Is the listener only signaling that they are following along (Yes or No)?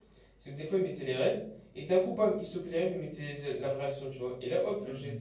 Yes